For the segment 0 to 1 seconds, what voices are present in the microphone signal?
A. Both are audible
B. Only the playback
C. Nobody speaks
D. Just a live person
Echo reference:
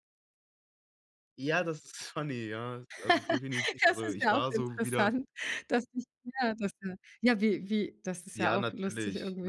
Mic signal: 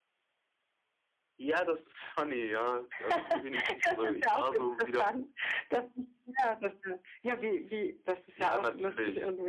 C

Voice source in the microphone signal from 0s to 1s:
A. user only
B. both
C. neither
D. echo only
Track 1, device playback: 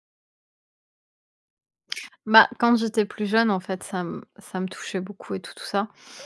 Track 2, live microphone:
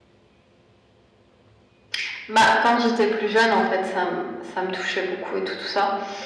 C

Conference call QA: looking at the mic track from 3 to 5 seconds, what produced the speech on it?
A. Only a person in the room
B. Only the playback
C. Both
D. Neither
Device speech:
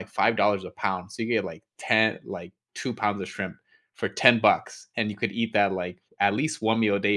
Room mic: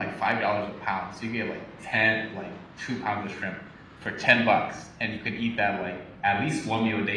B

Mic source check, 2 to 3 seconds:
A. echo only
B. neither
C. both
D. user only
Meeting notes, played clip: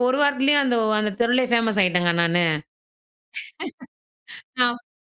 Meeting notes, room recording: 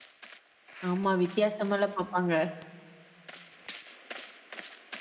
D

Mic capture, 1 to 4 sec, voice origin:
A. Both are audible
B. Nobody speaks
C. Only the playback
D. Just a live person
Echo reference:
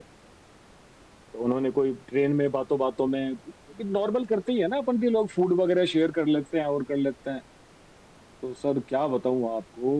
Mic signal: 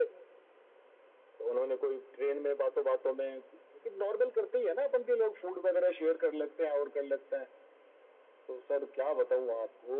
C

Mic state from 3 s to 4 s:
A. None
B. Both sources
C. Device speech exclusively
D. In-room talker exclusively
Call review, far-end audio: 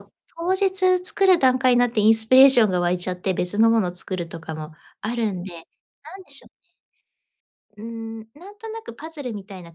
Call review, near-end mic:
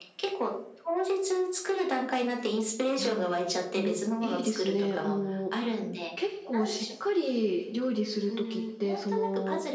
B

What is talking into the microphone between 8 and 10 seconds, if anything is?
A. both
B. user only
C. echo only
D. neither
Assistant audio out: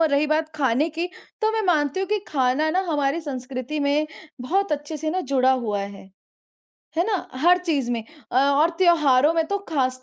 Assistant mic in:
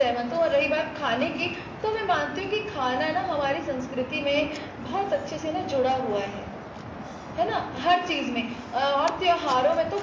C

